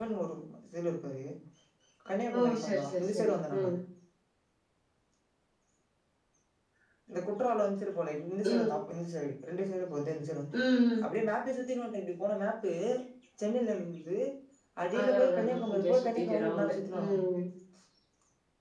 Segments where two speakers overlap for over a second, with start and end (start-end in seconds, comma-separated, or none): 2.4-3.7, 15.0-17.1